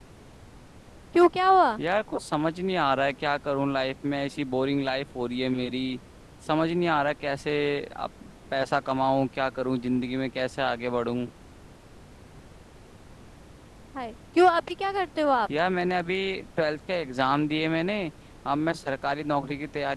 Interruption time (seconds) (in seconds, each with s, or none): none